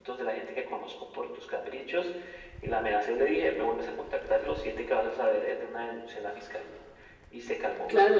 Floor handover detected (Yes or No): Yes